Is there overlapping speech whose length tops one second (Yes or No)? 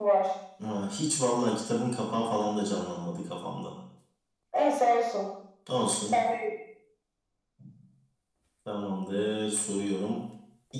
No